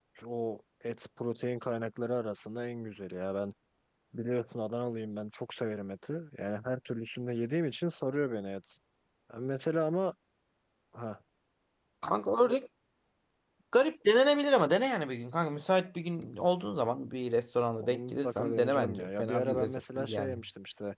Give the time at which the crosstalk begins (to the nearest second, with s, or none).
18 s